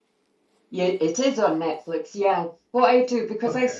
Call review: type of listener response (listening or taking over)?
listening